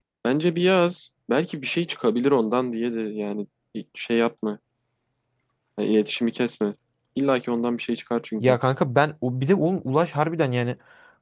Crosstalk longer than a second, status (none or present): none